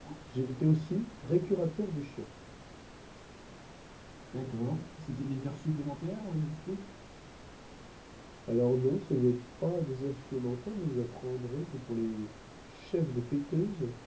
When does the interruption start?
none

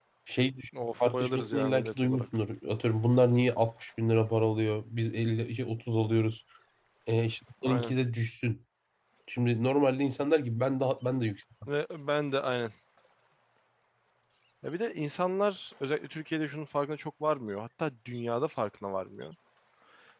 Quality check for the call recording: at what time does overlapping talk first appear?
1 s

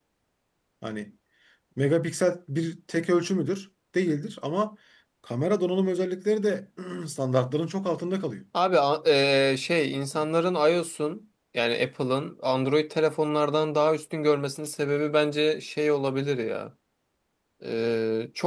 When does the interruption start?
none

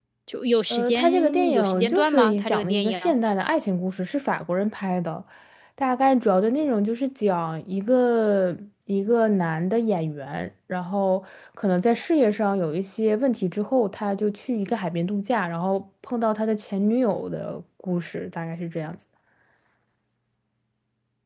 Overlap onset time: 1 s

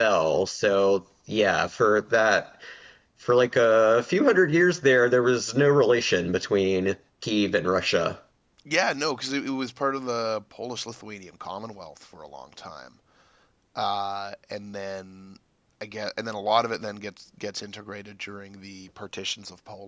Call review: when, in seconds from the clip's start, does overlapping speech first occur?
none

